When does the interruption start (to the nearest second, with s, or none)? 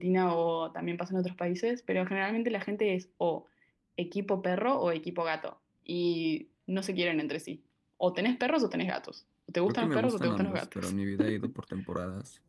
10 s